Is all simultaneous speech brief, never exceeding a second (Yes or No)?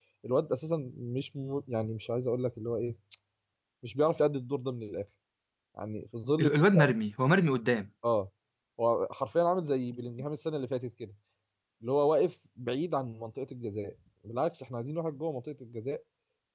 Yes